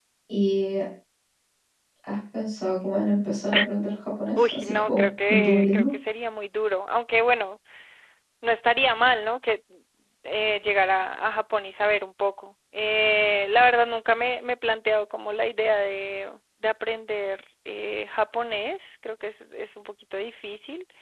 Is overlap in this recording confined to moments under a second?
No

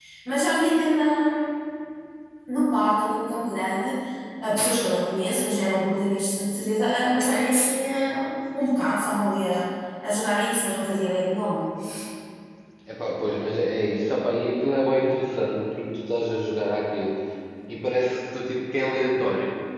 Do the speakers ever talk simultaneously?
No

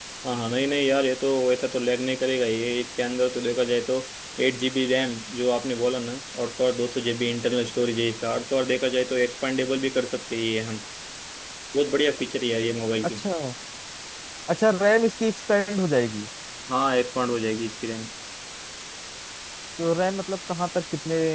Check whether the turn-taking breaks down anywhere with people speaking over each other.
No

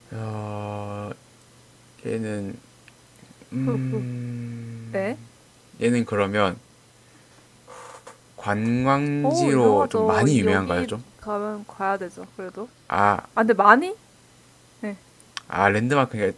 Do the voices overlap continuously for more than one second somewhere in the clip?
Yes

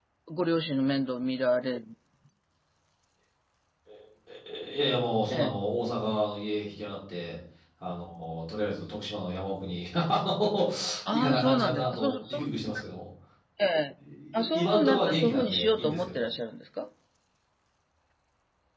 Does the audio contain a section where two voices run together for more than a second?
Yes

